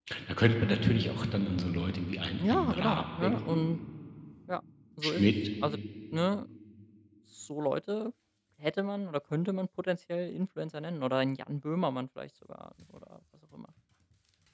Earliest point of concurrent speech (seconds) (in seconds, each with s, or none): 2.4 s